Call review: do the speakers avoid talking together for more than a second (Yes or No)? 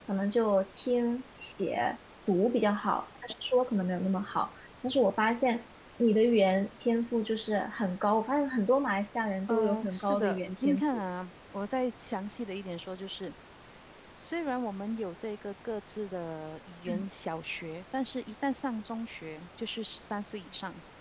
No